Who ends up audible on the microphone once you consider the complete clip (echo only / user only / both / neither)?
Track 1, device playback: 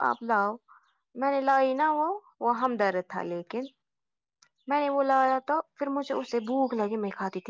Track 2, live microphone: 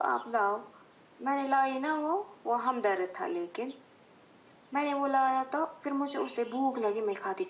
echo only